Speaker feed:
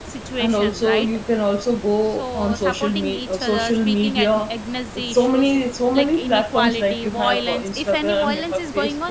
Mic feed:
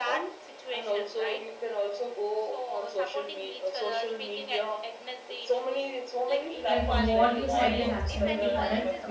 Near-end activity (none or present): present